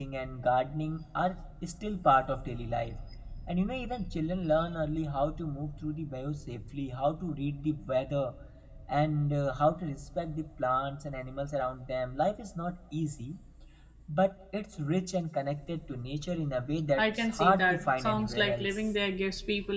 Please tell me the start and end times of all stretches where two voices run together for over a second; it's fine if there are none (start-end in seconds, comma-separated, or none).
17.0-18.8